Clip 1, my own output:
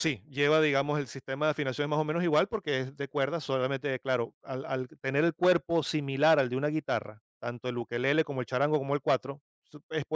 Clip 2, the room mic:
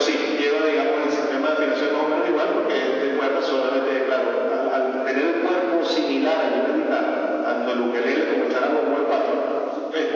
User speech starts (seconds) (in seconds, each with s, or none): none